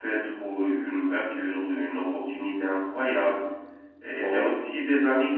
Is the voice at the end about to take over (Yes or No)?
No